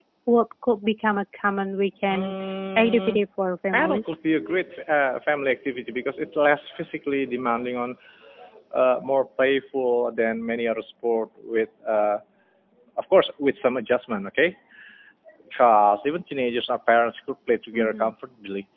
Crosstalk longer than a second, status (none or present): none